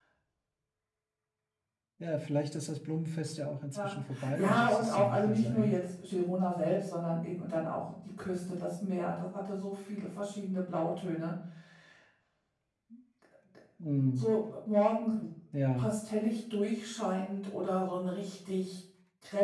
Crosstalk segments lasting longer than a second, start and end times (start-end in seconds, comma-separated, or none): 4.3-5.8